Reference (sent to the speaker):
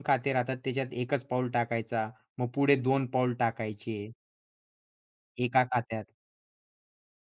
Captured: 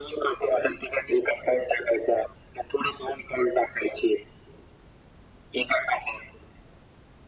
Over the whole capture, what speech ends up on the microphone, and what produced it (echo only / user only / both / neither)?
echo only